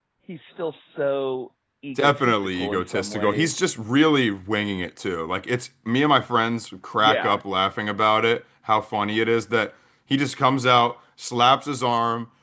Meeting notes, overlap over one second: present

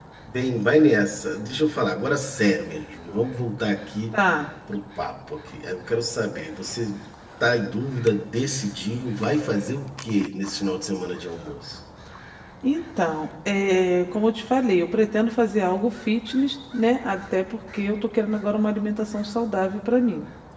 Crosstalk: none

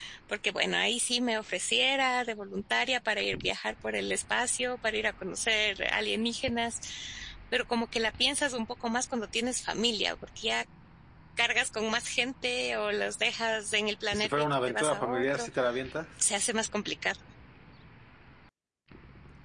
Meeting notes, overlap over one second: present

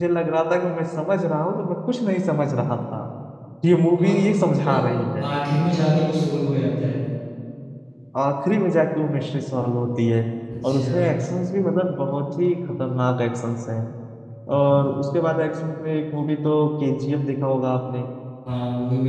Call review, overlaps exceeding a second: none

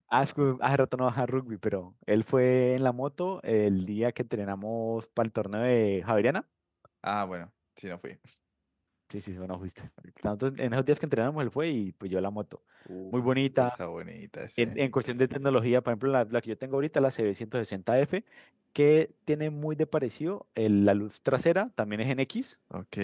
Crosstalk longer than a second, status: none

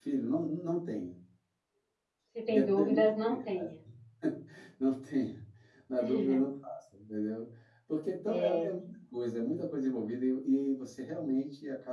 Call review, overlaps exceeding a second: present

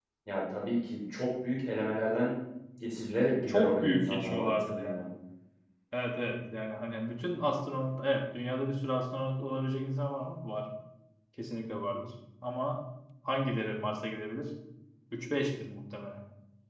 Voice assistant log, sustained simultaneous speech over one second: present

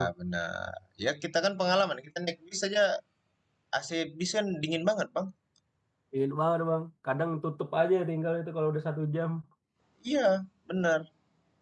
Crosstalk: none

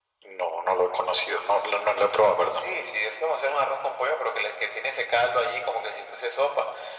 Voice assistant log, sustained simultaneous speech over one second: none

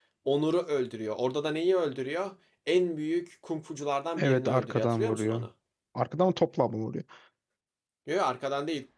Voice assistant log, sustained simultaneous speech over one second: present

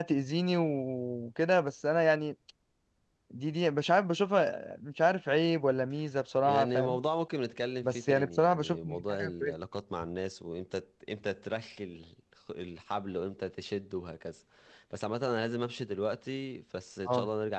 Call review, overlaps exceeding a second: present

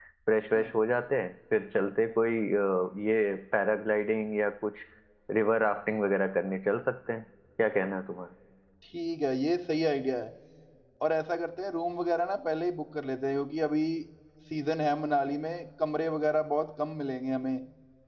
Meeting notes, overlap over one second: none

